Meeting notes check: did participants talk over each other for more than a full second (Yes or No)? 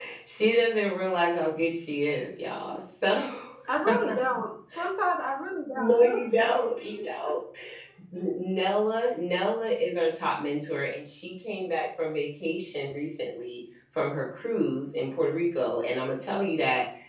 No